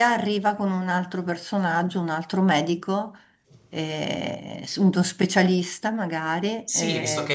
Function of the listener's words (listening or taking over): taking over